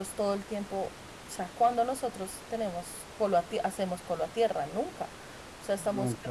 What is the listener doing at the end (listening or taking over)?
listening